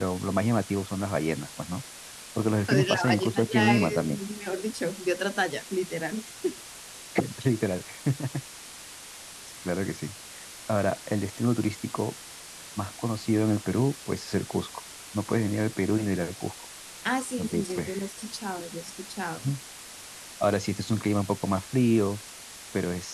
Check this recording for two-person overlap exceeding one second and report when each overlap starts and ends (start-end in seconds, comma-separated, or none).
2.7-4.2